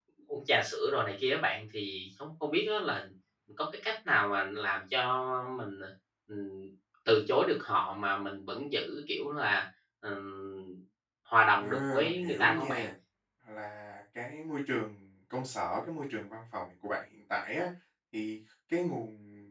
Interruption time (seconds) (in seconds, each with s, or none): 11.6 s